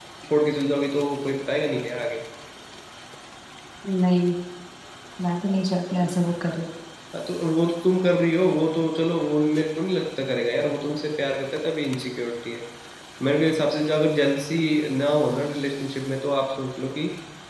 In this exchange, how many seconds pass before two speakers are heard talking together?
none

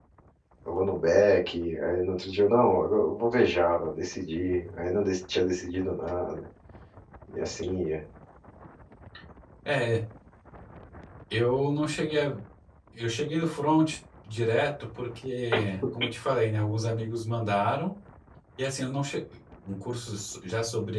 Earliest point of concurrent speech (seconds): none

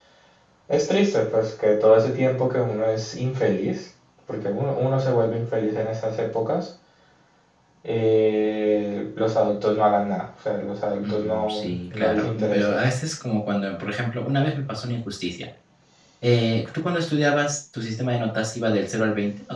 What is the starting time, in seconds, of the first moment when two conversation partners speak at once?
11.0 s

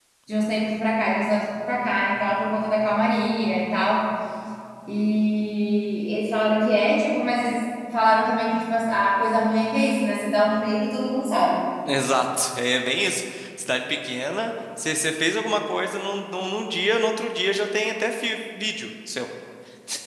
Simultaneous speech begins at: none

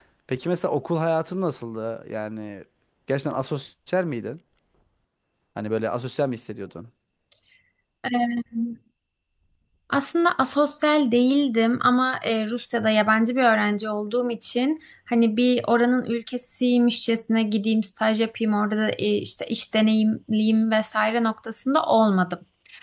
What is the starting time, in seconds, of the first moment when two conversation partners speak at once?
none

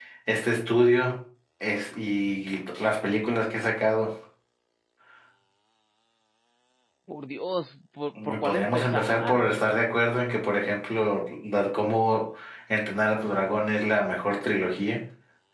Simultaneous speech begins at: 8.2 s

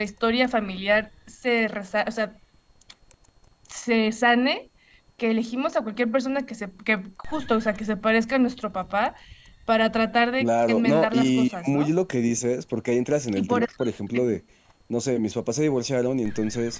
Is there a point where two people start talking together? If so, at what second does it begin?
10.4 s

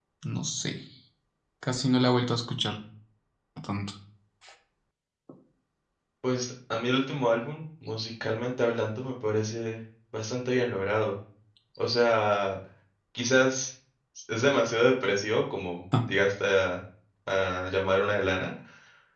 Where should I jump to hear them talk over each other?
none

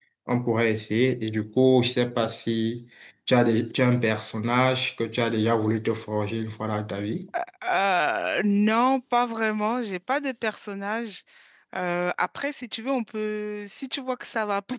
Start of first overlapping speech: none

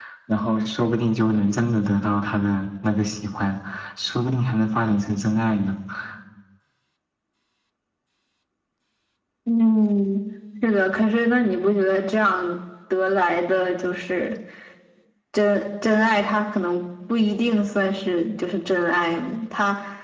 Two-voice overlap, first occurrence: none

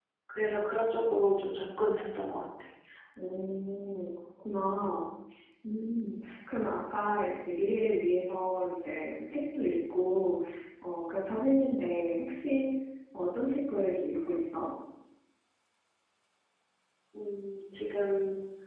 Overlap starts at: none

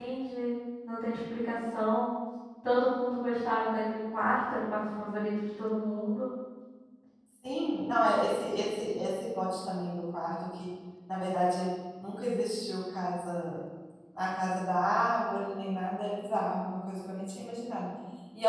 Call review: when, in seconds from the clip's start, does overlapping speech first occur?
none

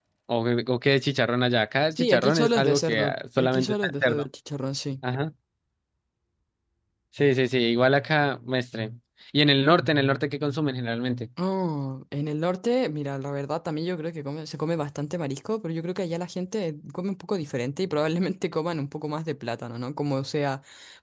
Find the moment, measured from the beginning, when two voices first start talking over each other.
1.9 s

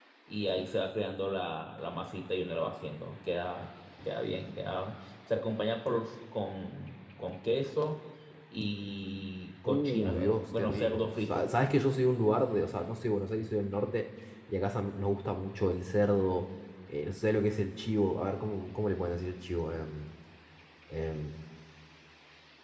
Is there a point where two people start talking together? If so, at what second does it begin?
9.6 s

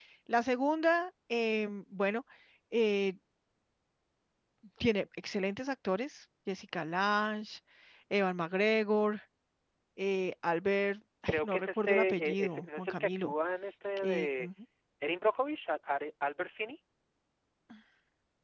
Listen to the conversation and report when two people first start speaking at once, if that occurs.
11.3 s

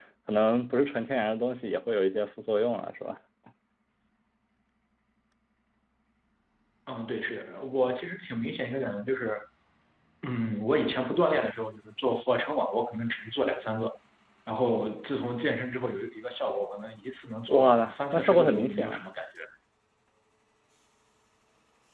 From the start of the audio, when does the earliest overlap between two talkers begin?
17.5 s

